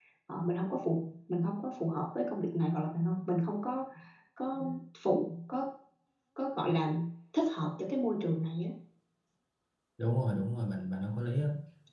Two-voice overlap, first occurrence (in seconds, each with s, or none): none